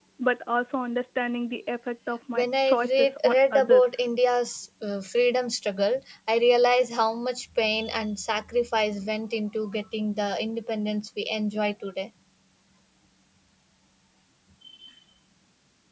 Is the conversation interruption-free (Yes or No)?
No